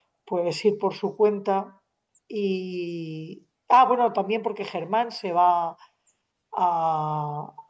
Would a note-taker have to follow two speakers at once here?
No

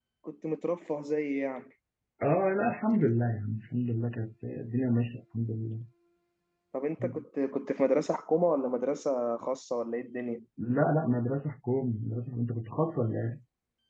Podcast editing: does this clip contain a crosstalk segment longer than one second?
No

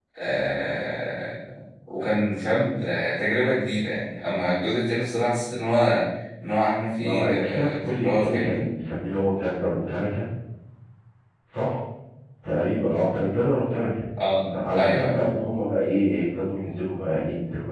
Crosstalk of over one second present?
Yes, from 7.0 s

